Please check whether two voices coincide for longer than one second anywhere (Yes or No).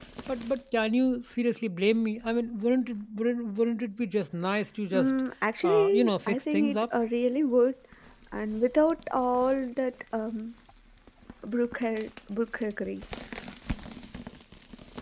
Yes